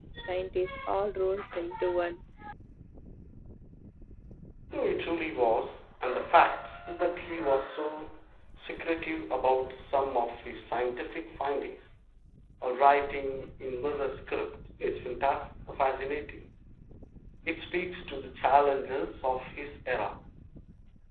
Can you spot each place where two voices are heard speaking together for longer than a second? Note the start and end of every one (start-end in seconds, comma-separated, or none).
none